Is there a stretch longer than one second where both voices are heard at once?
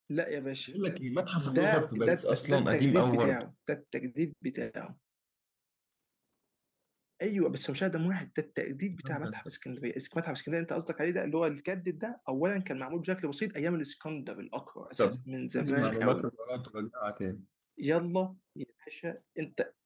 Yes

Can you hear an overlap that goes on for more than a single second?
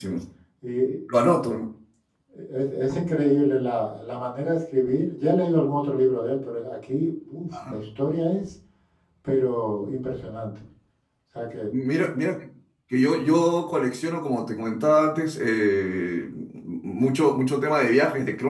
No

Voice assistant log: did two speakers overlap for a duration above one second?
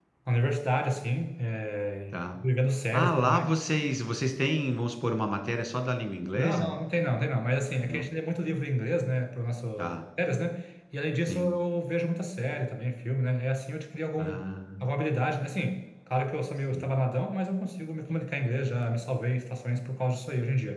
No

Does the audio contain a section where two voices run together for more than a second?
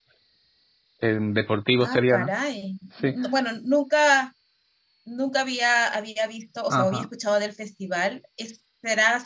No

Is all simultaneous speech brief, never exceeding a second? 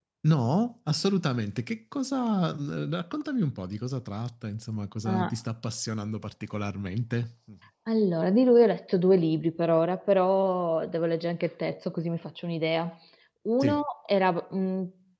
Yes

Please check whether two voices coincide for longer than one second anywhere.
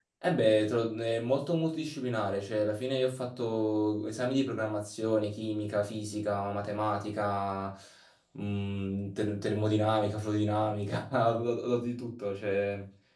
No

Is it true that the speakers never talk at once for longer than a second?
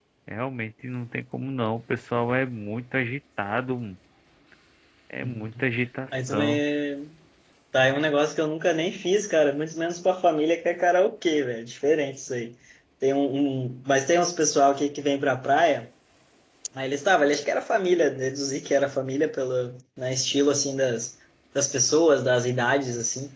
Yes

